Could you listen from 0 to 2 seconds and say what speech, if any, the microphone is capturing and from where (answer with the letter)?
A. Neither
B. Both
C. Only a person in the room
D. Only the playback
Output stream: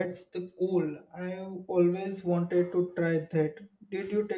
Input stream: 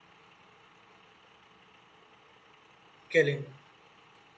A